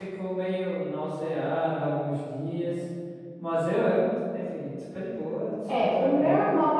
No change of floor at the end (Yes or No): No